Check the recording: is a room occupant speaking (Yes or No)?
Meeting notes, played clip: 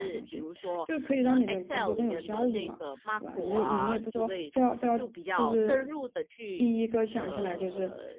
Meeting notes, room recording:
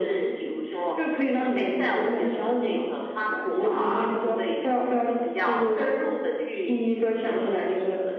No